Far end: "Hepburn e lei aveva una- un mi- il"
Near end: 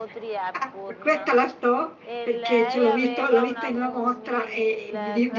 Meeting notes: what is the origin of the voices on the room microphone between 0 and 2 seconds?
both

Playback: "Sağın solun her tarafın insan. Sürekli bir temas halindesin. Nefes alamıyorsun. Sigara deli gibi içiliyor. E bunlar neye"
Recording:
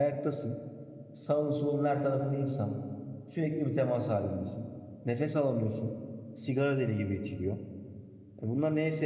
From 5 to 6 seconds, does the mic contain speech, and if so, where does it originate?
echo only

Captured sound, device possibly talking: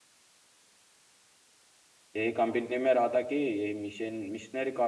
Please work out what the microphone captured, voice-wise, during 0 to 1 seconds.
neither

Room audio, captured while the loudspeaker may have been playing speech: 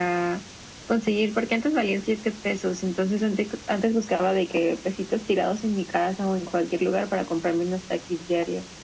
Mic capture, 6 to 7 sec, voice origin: echo only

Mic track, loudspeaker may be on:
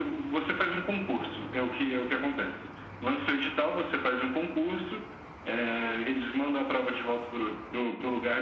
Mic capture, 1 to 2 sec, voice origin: echo only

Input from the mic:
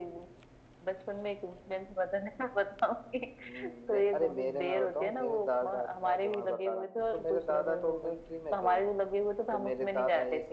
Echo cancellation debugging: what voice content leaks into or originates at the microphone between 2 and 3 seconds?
echo only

